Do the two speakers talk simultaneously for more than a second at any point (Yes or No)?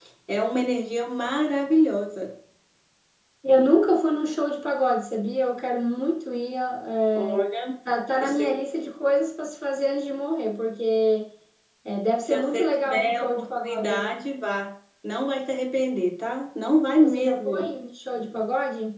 Yes